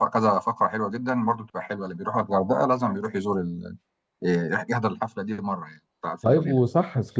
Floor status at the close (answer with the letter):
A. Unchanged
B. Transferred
B